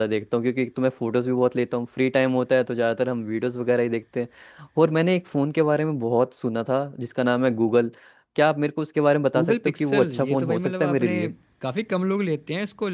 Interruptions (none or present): present